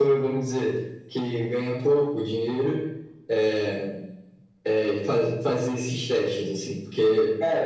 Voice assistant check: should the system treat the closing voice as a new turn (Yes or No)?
No